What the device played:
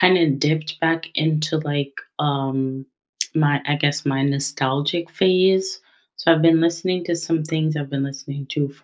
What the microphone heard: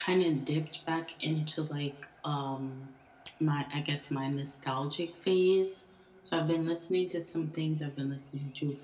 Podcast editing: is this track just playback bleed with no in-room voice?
Yes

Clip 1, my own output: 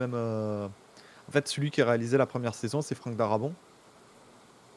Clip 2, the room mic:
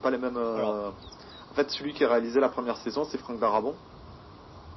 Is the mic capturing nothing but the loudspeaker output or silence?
No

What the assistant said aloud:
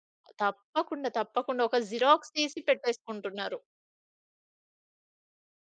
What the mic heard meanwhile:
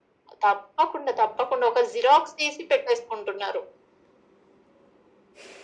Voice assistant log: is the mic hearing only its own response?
Yes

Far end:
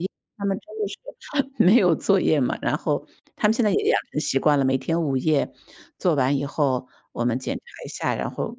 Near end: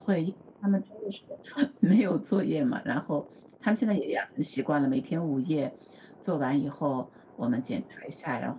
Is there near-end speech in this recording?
No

